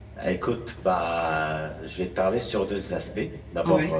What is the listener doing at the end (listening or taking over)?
listening